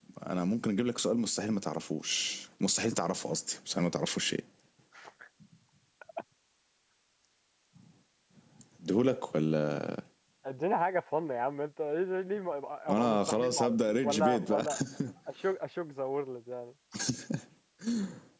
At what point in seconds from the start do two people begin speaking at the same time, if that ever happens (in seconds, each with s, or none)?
12.9 s